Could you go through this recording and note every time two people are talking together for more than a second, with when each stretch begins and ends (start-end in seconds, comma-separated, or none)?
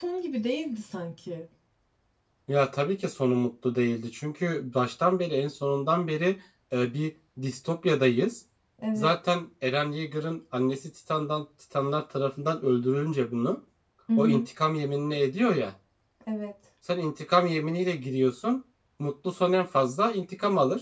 none